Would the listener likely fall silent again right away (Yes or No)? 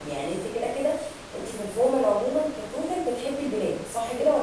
No